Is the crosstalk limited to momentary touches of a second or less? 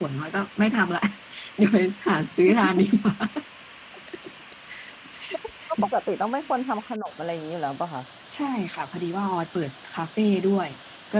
Yes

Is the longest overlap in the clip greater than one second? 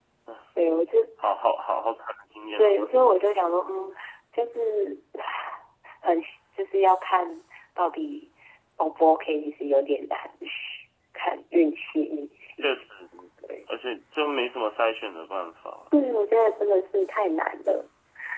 No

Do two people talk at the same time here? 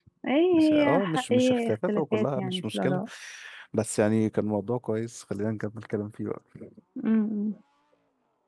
Yes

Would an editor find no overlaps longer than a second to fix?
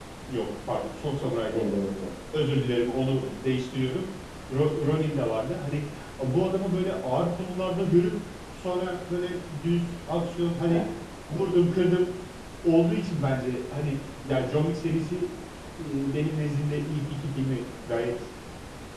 Yes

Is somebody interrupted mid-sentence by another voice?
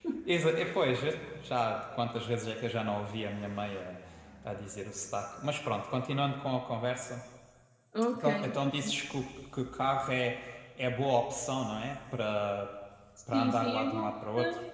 Yes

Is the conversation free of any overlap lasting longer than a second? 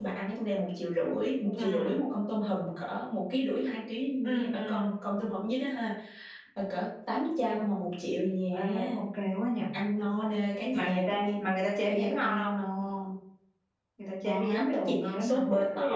No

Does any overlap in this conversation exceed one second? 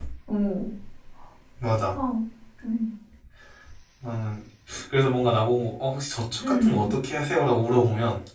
No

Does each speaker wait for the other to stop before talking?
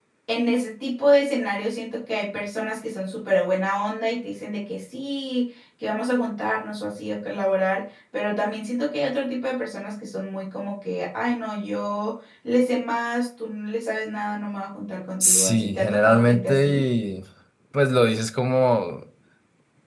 No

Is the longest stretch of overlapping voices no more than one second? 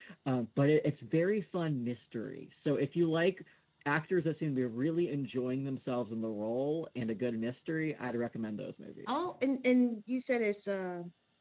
Yes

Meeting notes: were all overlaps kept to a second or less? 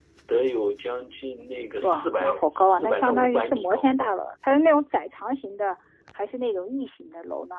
No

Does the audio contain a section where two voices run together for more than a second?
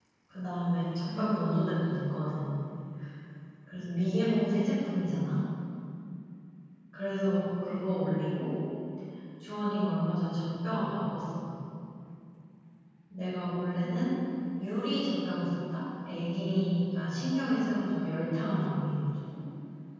No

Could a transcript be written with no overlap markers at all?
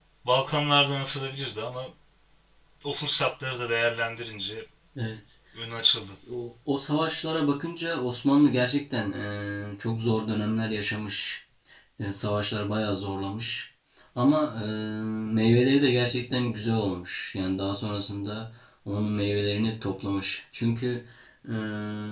Yes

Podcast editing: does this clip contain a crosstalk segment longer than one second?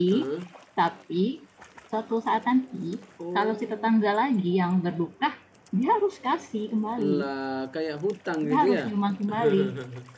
No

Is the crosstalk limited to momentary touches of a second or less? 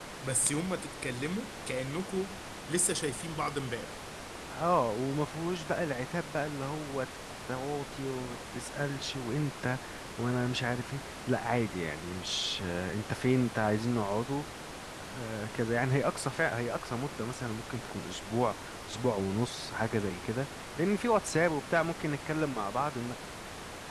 Yes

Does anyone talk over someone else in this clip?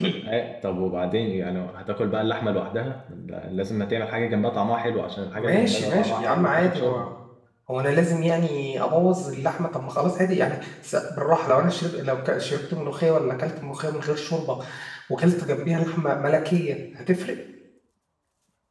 Yes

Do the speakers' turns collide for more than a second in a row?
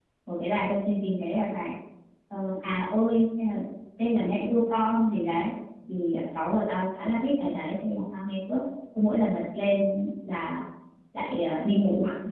No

